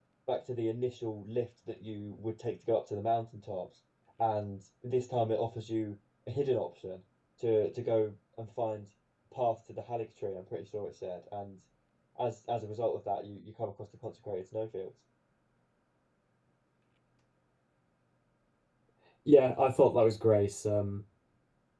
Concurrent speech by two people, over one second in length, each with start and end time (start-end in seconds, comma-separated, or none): none